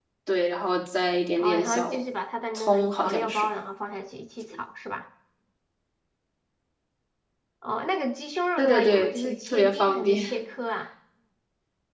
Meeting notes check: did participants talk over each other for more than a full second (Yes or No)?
Yes